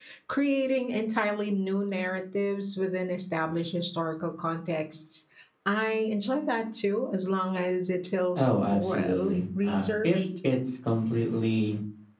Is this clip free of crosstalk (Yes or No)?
No